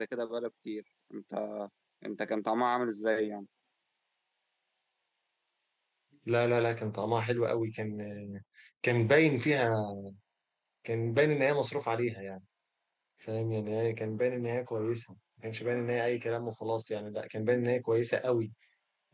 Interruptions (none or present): none